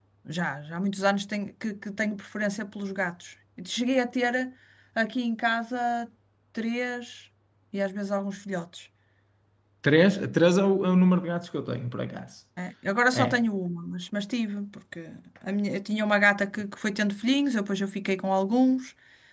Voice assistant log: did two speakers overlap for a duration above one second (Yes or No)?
No